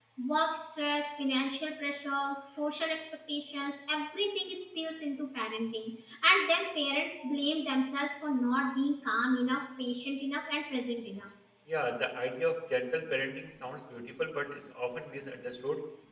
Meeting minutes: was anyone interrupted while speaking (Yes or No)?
No